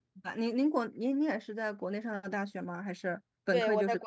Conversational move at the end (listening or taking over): taking over